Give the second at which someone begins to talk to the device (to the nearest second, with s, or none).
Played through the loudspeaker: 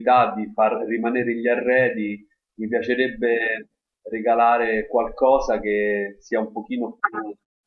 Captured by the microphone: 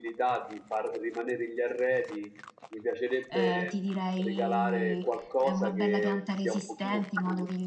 3 s